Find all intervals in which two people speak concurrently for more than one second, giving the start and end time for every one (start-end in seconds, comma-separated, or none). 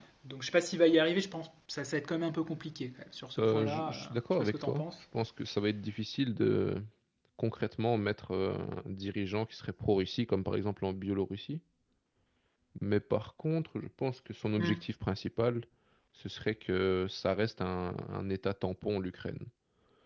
3.4-4.8